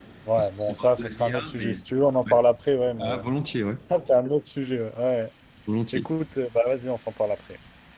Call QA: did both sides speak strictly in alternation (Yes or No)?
No